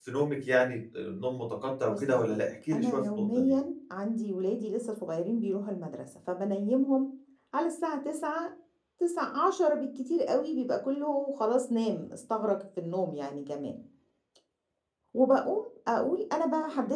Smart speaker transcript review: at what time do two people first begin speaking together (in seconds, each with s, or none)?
1.9 s